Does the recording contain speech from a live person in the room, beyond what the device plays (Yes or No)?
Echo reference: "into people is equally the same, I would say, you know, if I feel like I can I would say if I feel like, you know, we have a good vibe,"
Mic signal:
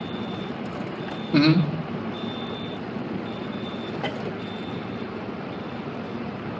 Yes